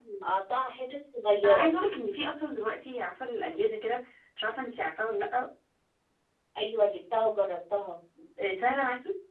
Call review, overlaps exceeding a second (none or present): none